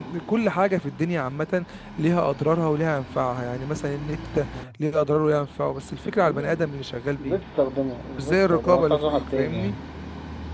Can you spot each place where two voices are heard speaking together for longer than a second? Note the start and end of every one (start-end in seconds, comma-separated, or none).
8.1-9.7